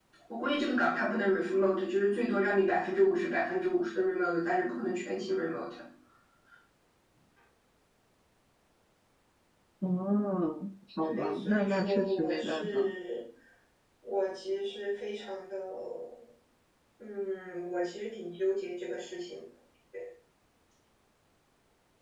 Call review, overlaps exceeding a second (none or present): present